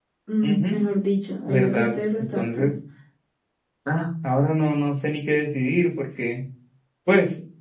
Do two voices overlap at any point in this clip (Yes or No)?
Yes